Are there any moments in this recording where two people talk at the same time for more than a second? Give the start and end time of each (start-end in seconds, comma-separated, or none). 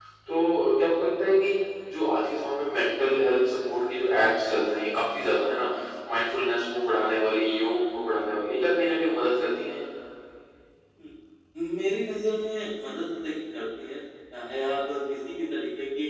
none